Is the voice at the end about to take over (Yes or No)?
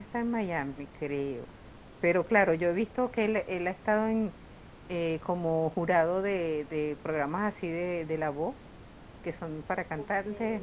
No